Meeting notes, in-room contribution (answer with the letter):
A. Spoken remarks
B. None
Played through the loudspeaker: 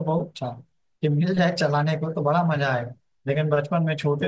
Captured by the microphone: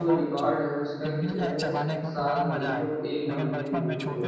A